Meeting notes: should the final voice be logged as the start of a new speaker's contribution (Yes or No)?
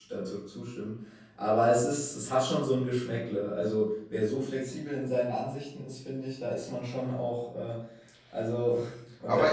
Yes